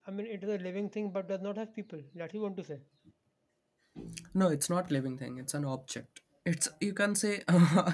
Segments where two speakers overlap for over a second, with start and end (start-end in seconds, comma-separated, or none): none